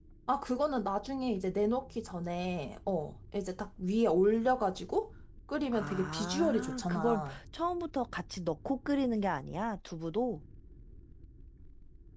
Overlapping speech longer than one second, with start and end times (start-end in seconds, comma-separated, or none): 5.7-7.4